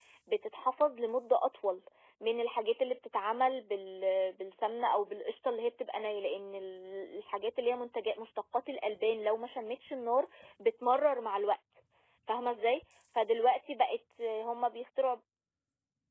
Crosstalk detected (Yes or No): No